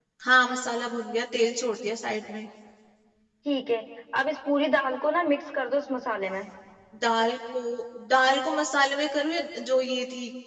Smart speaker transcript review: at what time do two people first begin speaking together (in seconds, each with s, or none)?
none